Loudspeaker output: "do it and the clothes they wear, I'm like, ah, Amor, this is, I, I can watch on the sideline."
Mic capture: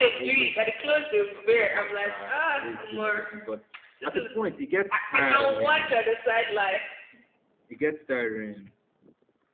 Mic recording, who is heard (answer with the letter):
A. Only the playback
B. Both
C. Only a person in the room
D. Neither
B